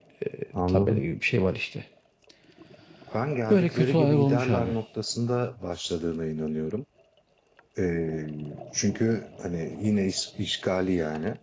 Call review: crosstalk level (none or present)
present